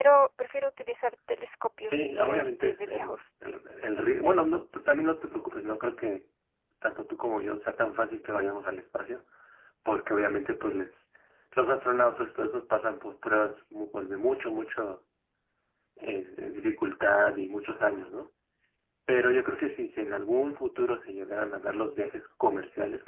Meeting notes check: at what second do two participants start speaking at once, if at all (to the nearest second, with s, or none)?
2 s